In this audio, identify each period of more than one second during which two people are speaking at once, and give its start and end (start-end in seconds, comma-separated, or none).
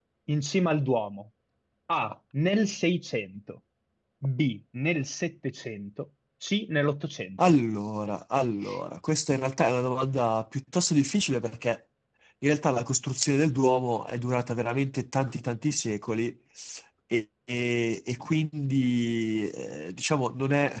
none